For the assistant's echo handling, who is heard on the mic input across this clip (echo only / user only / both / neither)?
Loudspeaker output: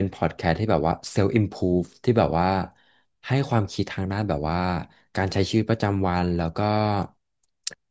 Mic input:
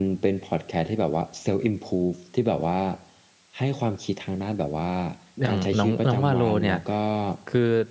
both